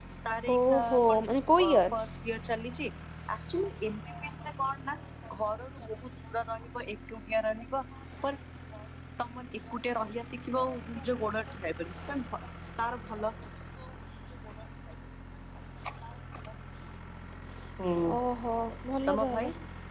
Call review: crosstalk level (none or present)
present